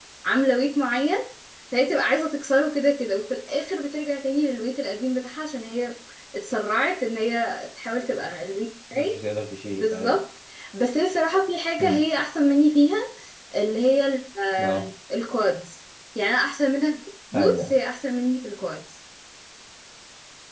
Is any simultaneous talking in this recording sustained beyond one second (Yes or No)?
No